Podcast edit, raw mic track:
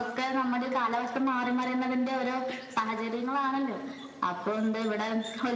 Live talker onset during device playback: none

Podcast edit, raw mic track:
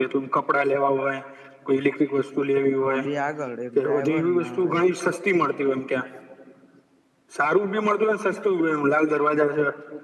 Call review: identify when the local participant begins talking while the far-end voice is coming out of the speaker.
2.9 s

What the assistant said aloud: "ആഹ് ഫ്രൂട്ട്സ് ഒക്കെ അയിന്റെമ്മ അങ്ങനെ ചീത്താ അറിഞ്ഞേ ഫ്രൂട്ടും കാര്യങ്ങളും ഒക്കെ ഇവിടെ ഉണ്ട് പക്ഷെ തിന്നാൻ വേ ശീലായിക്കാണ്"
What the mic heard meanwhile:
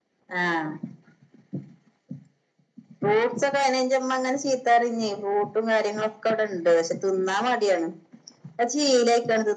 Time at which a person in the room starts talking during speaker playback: none

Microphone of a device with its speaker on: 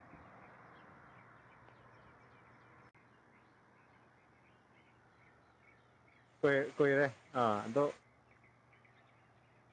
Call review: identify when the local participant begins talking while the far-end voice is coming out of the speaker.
6.4 s

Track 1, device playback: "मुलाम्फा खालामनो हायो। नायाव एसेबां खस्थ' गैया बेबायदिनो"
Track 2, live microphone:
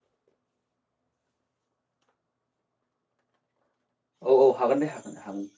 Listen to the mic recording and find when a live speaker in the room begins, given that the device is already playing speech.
4.3 s

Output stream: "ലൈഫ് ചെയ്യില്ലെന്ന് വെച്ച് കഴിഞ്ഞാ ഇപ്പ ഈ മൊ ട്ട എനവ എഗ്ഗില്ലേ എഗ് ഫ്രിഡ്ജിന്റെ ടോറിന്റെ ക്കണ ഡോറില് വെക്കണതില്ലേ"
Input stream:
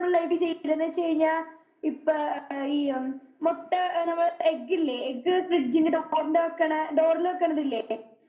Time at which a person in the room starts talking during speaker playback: none

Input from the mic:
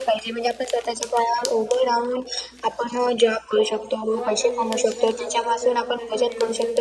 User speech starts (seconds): 4.1 s

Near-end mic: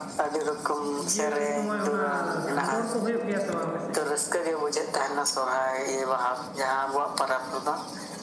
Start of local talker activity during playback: 1.1 s

